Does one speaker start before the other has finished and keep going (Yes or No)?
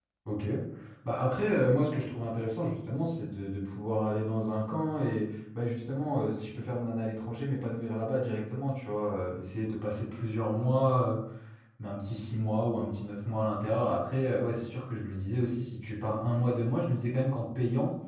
No